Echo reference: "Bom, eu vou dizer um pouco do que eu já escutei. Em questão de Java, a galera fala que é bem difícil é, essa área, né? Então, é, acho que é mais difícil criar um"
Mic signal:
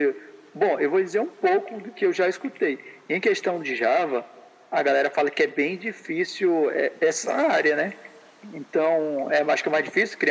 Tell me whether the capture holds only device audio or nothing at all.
Yes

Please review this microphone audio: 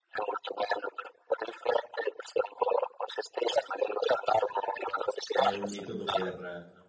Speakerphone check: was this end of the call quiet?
No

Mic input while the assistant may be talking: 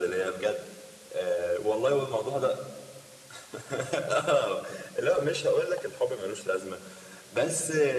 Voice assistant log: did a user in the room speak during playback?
No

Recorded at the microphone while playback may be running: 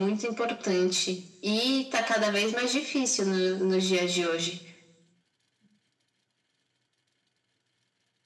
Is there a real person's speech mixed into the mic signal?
No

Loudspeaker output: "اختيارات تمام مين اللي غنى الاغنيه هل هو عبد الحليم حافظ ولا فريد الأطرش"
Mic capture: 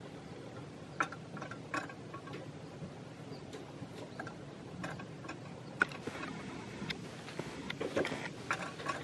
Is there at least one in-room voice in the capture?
No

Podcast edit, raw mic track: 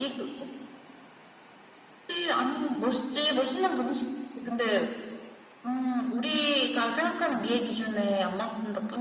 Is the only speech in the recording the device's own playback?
Yes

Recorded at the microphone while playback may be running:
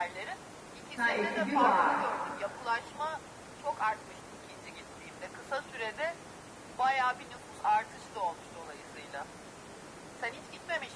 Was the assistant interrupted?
Yes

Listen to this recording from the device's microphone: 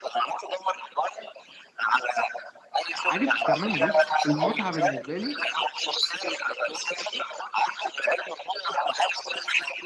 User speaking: Yes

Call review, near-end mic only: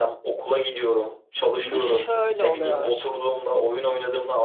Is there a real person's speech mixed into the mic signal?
Yes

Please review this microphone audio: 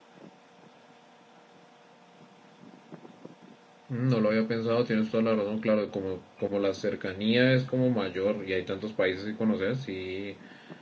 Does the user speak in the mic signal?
Yes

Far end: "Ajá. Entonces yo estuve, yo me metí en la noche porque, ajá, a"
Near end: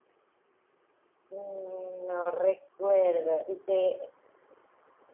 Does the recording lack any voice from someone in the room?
No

